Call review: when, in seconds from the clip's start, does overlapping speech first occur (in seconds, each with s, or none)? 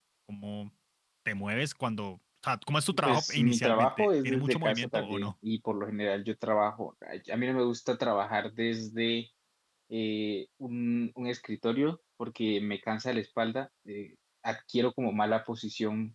3.0 s